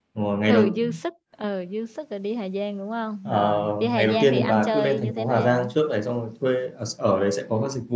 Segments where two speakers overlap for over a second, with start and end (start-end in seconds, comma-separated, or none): 3.2-5.7